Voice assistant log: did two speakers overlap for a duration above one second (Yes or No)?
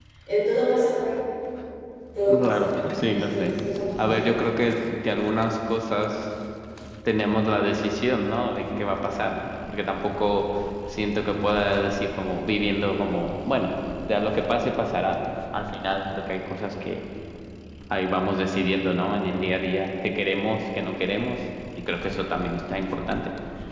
Yes